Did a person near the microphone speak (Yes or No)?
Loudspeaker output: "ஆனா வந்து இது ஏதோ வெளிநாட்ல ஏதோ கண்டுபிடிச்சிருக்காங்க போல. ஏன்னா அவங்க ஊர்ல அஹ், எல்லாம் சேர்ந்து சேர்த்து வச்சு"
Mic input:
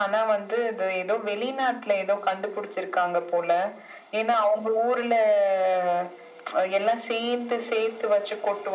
No